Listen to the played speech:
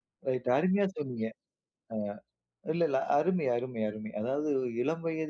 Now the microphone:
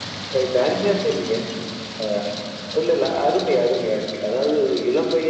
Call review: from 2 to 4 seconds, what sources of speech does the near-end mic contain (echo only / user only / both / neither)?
echo only